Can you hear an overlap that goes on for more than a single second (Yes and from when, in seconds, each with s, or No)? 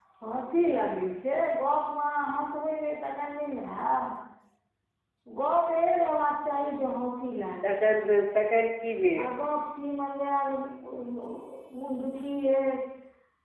No